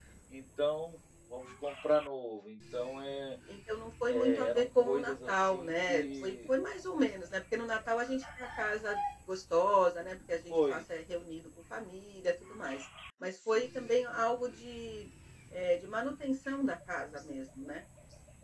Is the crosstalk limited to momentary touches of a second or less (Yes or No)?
No